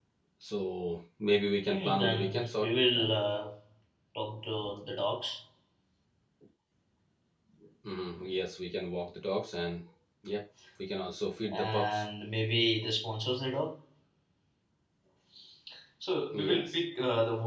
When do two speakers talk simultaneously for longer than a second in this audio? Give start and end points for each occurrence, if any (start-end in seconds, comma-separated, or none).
1.7-3.1